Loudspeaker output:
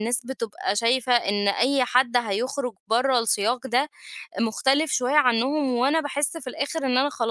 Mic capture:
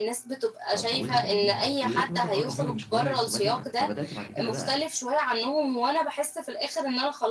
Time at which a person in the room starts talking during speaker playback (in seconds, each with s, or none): 0.7 s